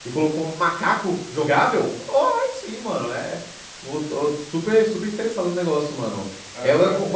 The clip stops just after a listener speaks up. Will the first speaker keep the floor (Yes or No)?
Yes